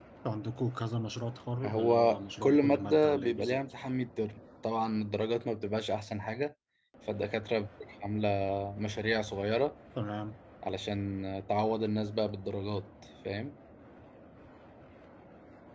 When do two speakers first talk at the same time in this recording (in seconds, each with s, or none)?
1.6 s